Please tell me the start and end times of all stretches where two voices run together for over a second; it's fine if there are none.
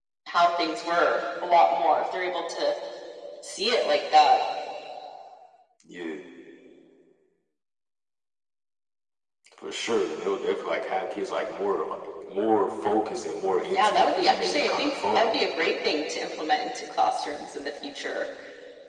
13.7-15.3

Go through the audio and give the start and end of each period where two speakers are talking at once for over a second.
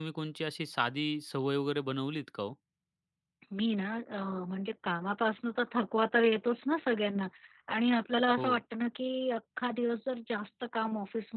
none

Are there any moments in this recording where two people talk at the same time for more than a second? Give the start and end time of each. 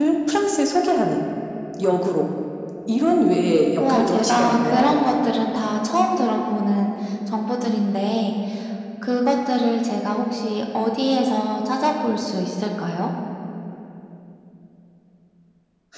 3.8-5.0

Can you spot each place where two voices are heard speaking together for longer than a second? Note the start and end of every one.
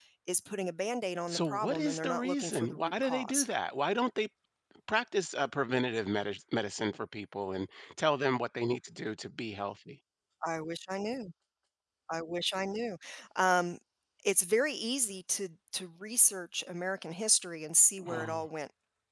1.3-3.5

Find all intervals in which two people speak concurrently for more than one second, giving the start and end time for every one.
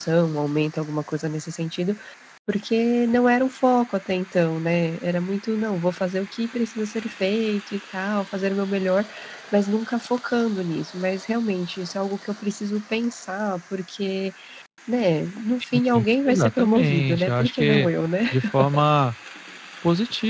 16.3-17.9

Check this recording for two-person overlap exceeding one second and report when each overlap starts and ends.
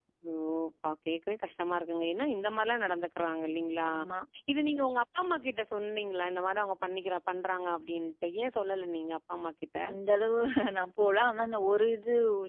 none

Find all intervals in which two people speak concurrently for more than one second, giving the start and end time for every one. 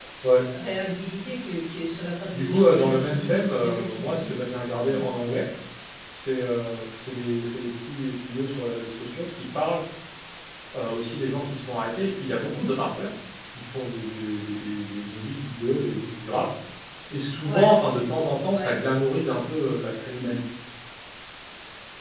2.3-5.1

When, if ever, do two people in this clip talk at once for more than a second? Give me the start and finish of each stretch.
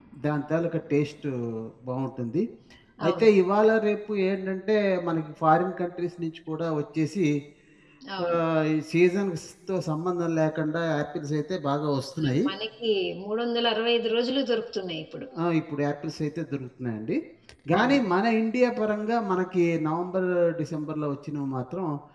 none

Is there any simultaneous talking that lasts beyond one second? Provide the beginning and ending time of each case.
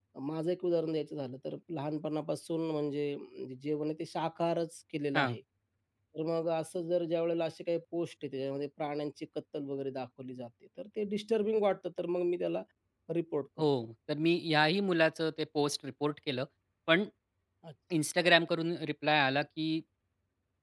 none

